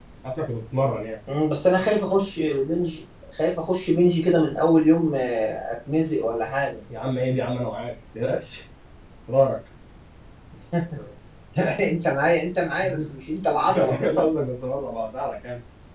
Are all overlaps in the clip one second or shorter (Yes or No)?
Yes